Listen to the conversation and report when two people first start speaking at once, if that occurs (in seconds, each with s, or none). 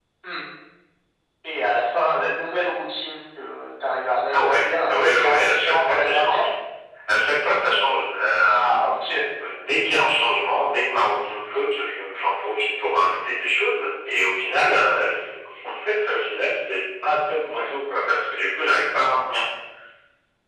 4.3 s